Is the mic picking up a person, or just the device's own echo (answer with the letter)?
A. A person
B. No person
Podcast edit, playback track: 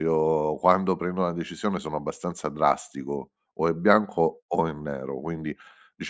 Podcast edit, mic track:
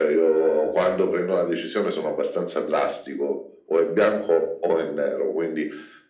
B